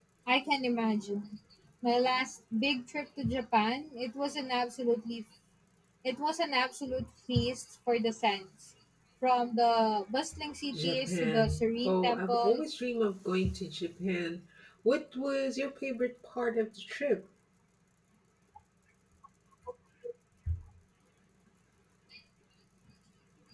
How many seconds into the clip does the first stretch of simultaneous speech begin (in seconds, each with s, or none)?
10.7 s